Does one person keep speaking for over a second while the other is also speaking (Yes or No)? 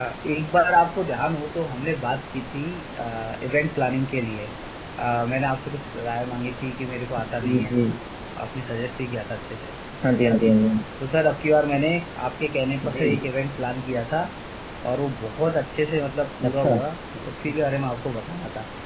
No